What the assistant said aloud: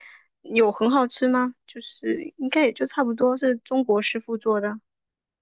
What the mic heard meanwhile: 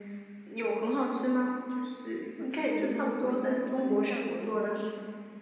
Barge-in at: 2.4 s

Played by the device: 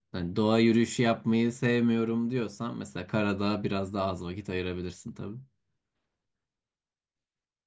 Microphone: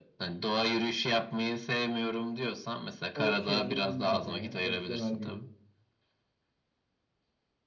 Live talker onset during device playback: 3.1 s

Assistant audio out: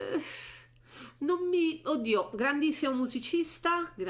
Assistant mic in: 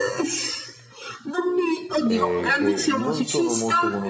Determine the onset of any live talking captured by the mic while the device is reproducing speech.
2.0 s

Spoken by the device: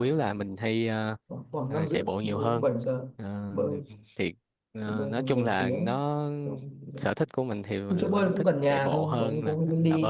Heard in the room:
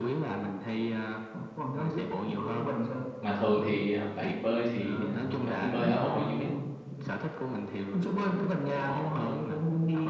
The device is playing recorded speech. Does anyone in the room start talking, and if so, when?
2.6 s

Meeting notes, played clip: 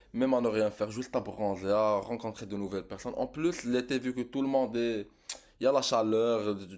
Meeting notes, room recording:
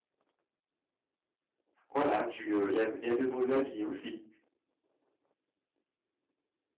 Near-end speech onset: 1.9 s

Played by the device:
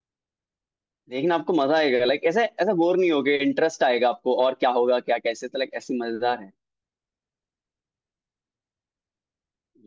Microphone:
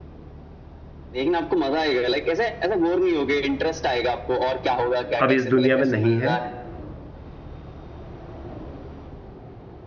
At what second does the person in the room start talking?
5.2 s

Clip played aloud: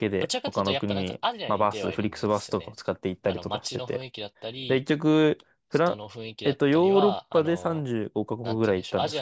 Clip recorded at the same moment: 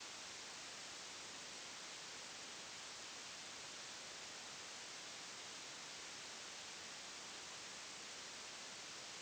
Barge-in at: none

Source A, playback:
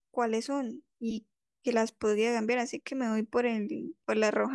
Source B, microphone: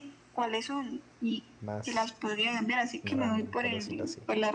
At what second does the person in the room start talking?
1.6 s

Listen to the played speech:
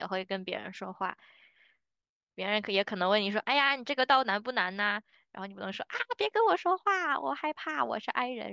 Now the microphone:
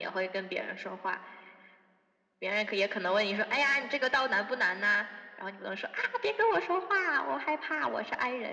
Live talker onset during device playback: none

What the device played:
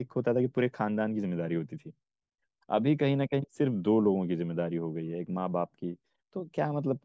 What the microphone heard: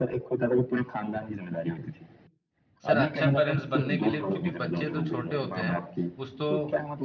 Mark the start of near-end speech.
2.8 s

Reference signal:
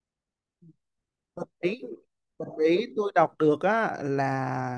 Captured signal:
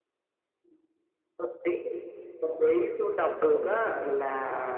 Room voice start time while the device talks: 3.2 s

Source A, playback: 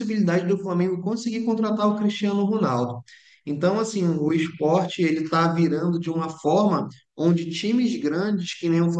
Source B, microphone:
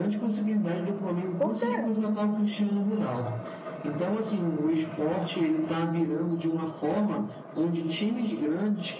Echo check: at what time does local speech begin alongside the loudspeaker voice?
1.4 s

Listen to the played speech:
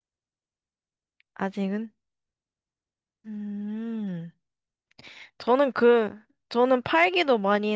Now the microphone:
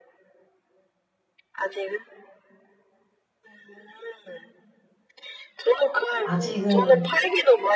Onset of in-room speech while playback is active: 6.2 s

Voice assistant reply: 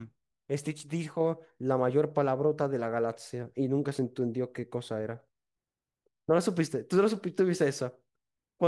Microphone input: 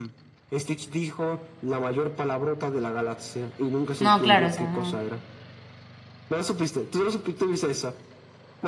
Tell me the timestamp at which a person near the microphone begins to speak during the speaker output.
4.0 s

